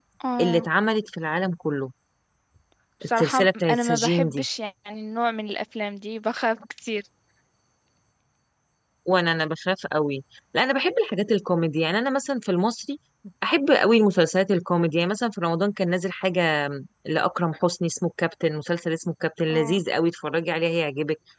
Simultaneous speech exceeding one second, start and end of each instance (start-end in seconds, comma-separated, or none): 3.0-4.4